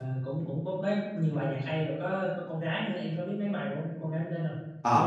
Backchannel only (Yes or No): No